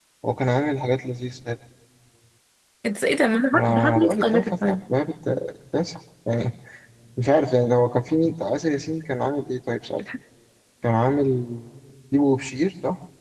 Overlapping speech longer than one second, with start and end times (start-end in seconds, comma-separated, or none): 3.5-4.8